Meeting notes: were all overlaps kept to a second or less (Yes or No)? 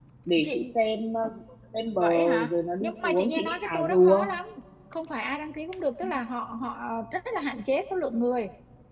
No